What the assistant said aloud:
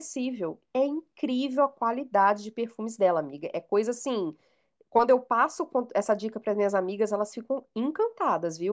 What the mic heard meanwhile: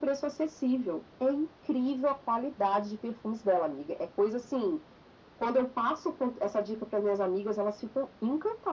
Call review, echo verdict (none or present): present